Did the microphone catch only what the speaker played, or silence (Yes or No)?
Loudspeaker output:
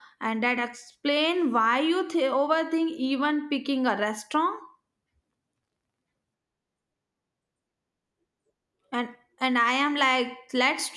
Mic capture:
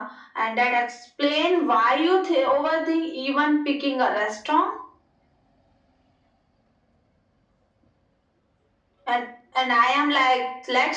Yes